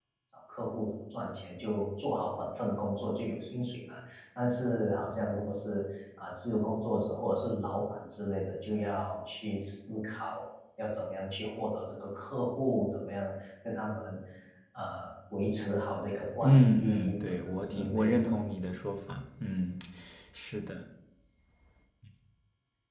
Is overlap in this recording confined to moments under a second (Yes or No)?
No